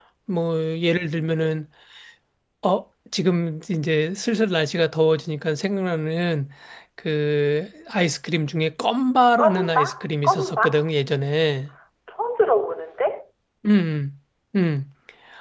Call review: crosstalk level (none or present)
present